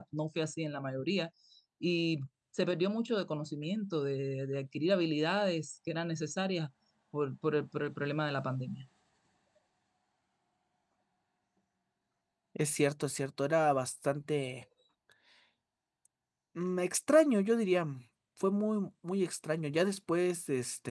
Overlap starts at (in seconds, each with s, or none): none